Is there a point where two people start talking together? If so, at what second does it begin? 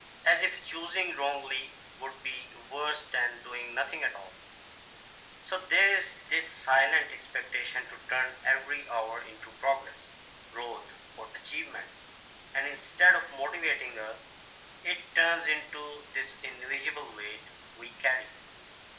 none

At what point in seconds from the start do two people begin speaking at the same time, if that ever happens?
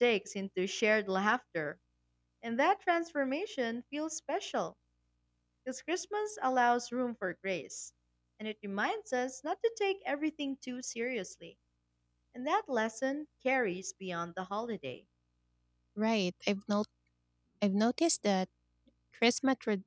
none

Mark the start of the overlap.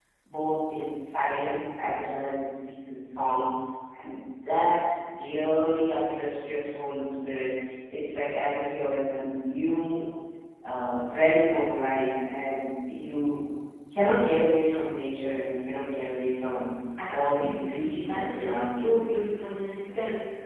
17 s

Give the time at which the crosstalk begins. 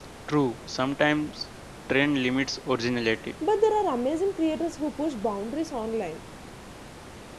none

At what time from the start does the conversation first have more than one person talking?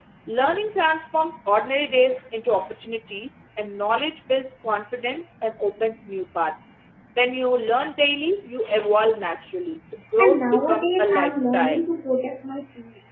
10 s

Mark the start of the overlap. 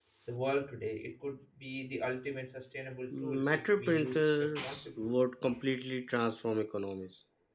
3 s

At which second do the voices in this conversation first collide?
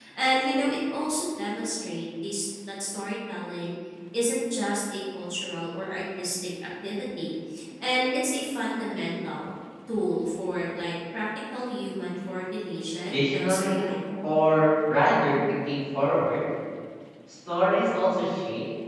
13 s

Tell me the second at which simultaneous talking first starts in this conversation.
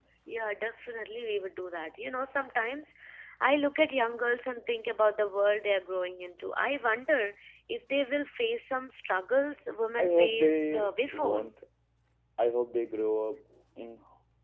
10 s

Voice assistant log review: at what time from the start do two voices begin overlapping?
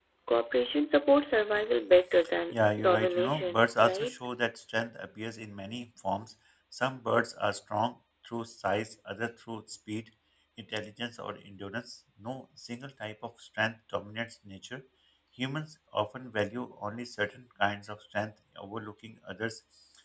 3 s

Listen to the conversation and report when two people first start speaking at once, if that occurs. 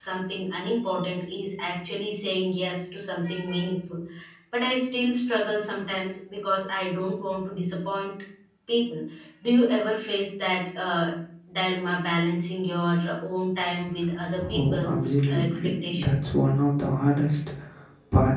14 s

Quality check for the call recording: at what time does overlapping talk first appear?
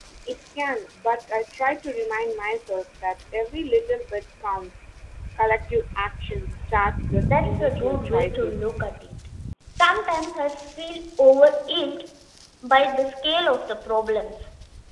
7 s

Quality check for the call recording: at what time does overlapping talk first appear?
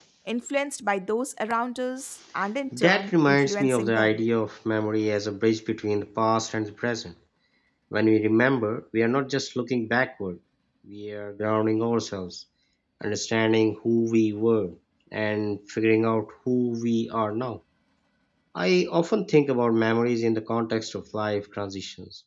3 s

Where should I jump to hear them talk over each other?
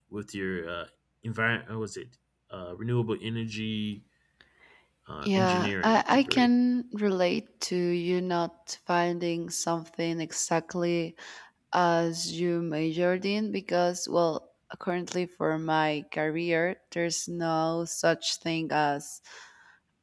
5 s

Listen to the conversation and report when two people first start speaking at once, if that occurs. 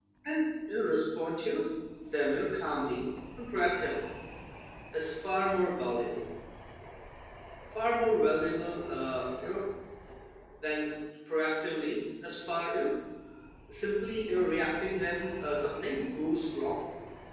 none

